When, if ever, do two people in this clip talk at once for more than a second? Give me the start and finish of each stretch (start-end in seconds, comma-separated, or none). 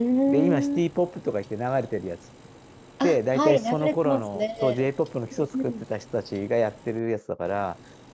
3.0-4.9